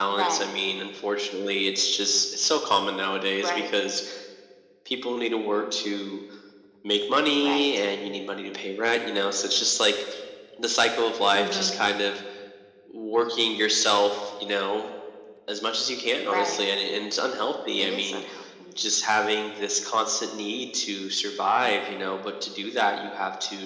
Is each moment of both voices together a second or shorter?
Yes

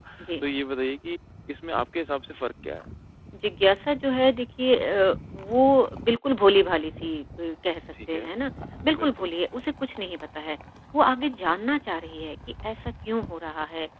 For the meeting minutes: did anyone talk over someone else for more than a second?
No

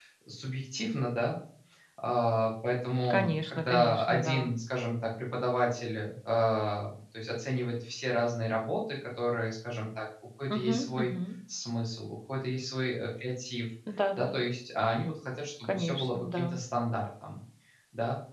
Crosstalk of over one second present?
Yes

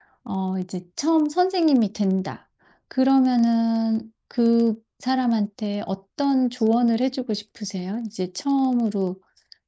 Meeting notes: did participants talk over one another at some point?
No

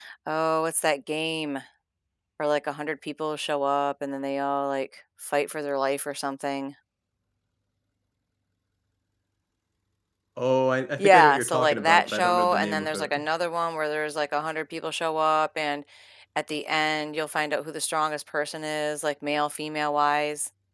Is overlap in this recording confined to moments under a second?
No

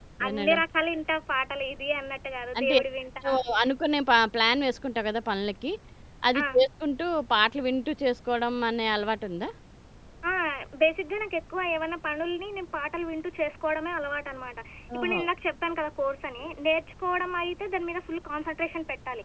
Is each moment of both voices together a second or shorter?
Yes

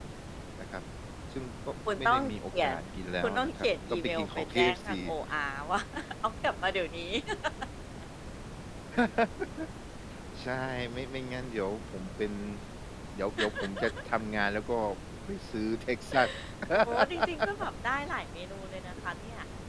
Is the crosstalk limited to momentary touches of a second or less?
No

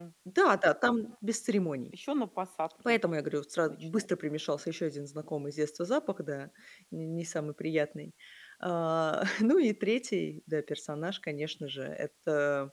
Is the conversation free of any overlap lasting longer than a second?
Yes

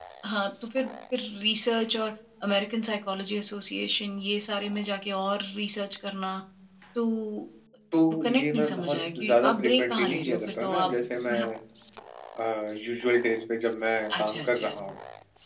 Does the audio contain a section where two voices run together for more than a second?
Yes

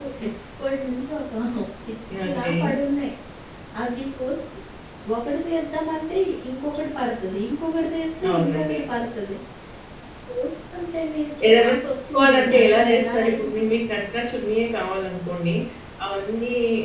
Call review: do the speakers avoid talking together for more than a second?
No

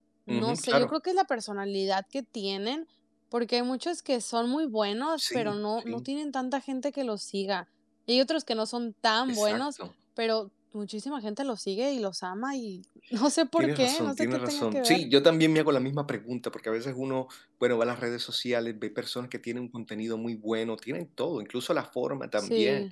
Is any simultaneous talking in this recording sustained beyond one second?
Yes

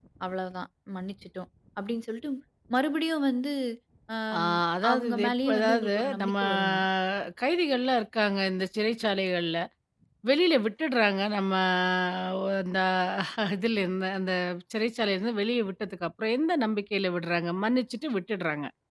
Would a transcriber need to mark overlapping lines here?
Yes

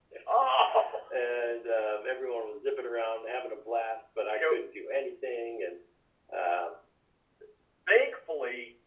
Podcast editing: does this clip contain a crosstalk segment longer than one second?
No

